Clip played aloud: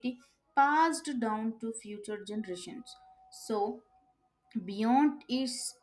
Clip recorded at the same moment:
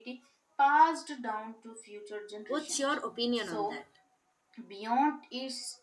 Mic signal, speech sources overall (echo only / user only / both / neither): both